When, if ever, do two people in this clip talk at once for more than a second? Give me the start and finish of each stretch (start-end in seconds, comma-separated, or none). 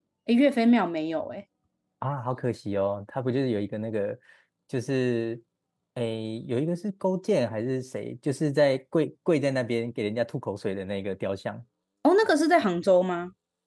none